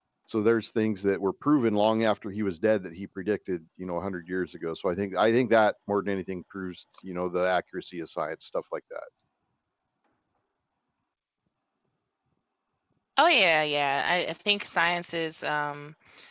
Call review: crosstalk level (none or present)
none